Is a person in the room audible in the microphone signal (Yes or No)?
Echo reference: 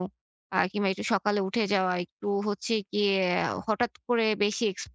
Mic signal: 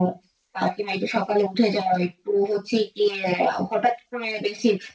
No